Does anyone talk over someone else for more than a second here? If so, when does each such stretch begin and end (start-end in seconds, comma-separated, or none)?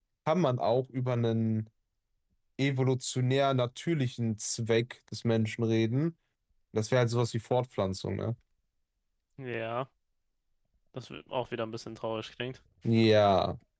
none